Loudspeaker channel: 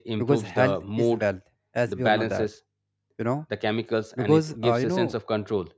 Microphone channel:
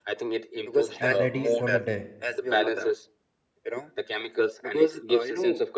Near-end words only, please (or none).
and ready for the day,